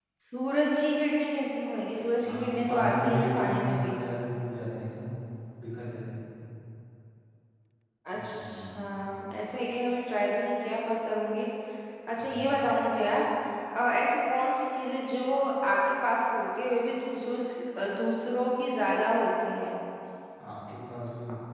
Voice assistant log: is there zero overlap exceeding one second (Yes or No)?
No